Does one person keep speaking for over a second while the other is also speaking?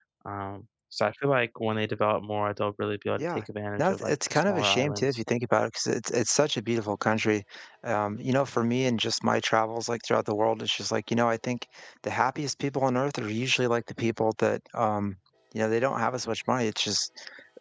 Yes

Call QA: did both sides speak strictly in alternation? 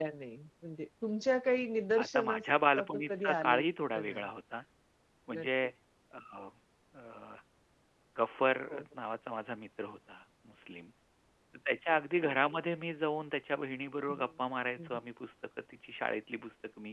No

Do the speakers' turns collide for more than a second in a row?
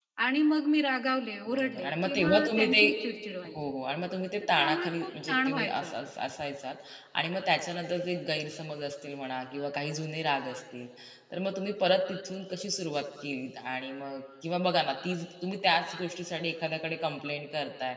Yes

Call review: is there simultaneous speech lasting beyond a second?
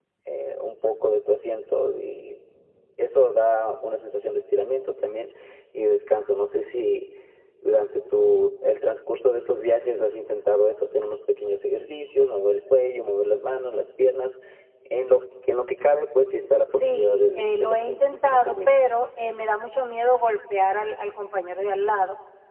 Yes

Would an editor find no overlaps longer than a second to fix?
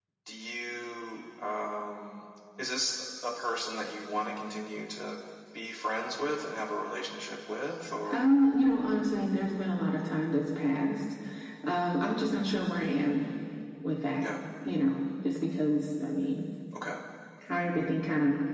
Yes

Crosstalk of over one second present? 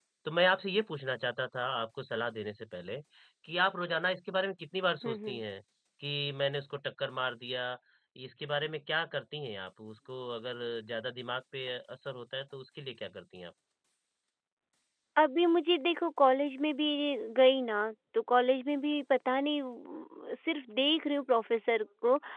No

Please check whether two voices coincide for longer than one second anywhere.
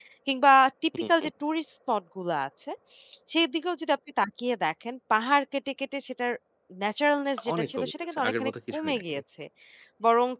Yes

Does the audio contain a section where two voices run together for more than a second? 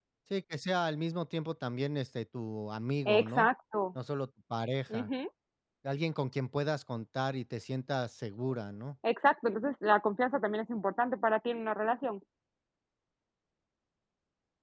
No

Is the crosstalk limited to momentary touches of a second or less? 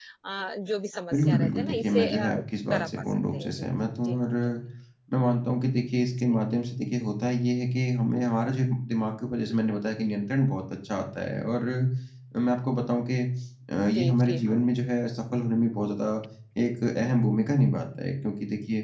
No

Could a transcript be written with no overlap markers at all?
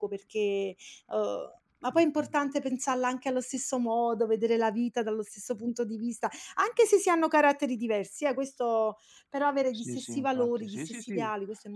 No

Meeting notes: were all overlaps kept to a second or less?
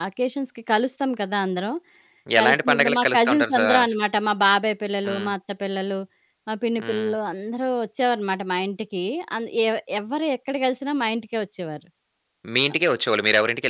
No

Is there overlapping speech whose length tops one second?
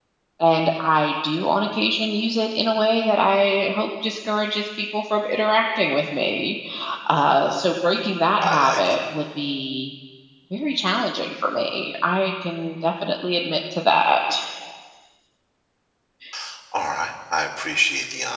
No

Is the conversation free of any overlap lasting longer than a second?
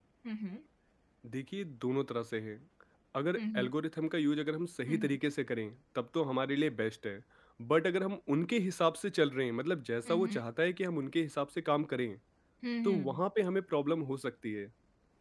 Yes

